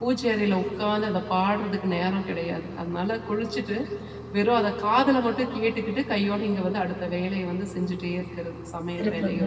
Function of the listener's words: taking over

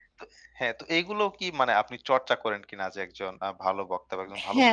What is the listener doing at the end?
taking over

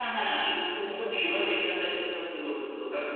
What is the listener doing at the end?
listening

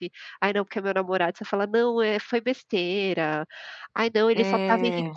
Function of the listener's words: listening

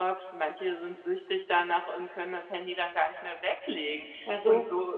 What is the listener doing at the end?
listening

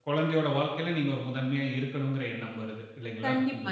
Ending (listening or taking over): taking over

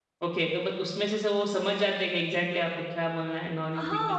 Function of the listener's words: taking over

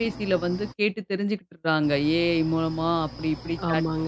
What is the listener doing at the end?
listening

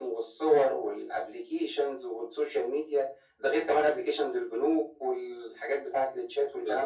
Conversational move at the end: taking over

